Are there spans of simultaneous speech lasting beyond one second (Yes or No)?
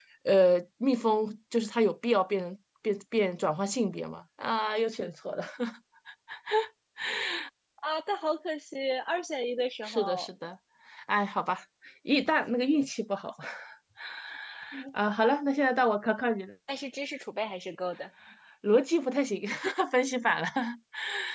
No